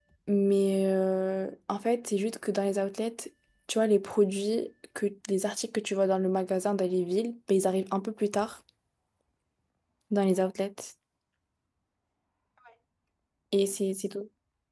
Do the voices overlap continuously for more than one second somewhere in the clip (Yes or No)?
No